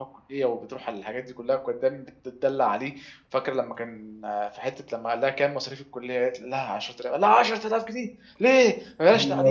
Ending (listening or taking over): taking over